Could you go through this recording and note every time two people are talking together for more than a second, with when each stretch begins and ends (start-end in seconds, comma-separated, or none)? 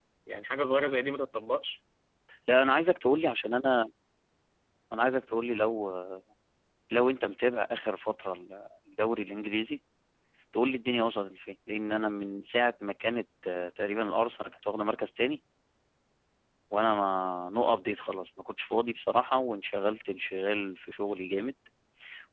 none